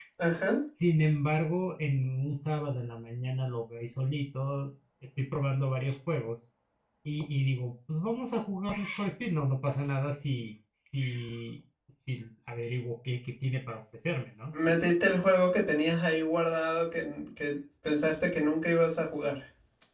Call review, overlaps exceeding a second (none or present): none